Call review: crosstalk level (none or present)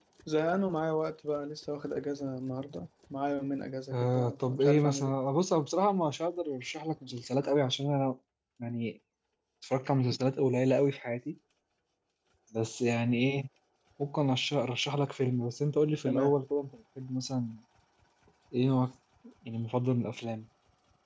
present